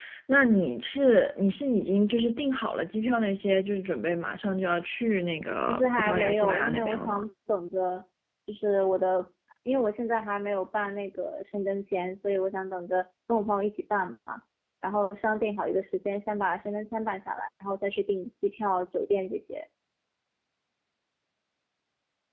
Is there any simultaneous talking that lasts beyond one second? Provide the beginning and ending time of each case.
5.7-7.2

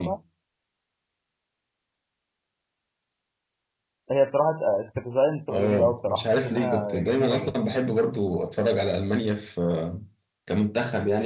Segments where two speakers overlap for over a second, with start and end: 5.5-7.6

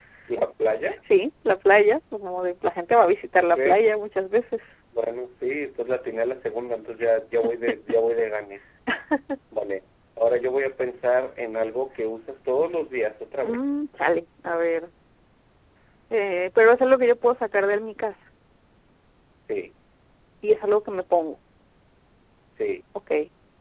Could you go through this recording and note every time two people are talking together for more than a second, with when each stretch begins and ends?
none

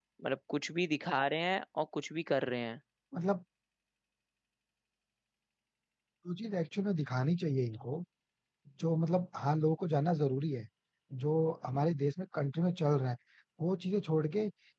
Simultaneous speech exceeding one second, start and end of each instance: none

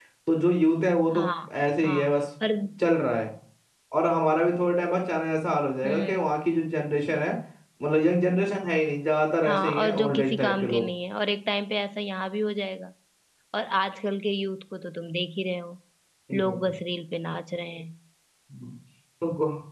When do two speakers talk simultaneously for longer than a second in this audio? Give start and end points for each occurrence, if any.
9.4-10.8

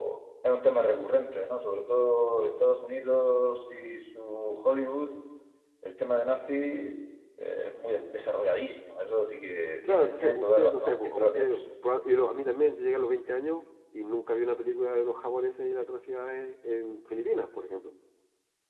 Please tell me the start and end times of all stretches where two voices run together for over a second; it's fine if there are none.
9.9-11.7

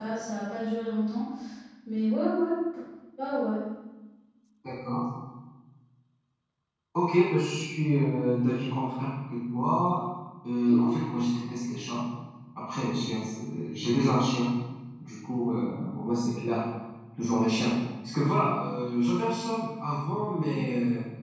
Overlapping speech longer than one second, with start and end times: none

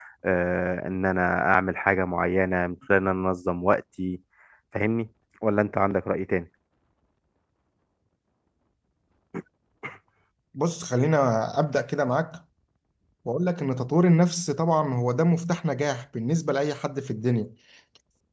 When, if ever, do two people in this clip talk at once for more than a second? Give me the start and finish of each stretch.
none

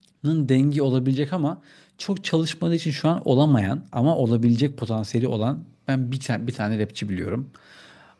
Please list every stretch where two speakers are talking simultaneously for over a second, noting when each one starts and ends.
none

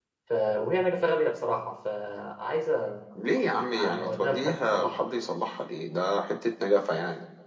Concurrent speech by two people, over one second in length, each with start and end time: 3.5-5.1

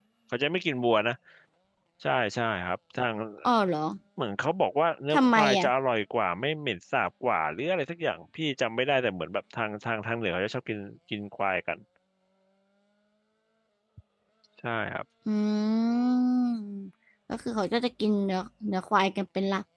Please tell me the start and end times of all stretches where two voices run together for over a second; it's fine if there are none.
none

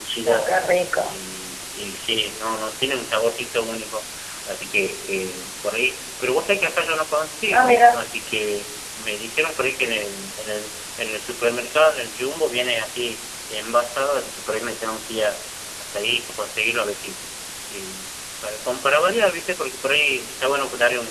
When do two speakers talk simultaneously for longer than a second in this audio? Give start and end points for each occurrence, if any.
none

